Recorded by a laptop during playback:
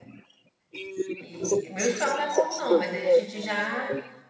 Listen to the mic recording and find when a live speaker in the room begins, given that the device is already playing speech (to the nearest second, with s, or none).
1 s